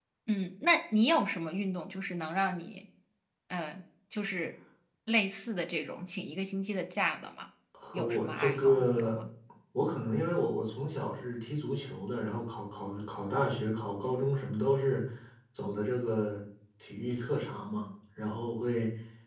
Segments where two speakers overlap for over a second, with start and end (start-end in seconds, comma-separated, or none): 7.9-9.2